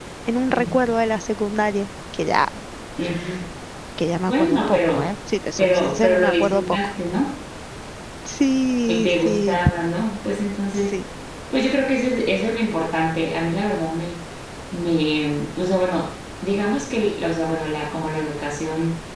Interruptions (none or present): present